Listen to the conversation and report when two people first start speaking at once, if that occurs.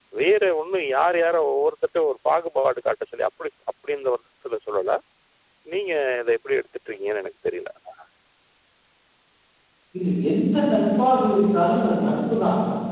none

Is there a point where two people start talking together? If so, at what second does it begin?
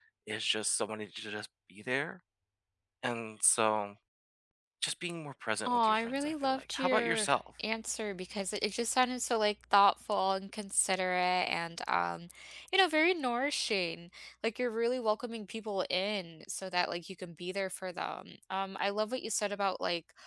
5.7 s

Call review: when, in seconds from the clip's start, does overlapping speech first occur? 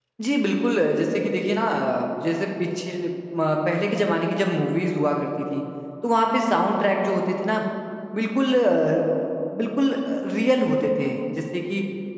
none

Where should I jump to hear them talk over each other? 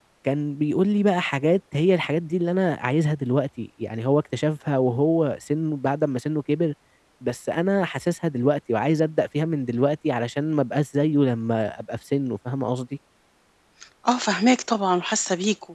none

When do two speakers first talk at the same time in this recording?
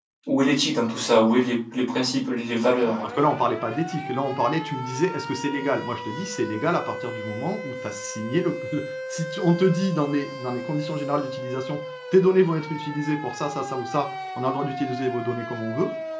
none

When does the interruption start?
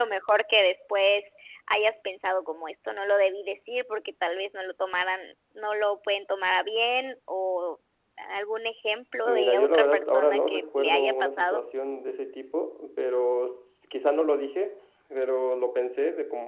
9.2 s

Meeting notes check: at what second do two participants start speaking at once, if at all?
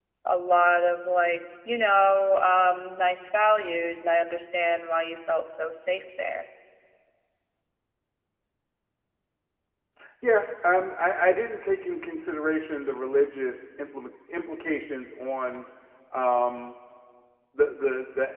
none

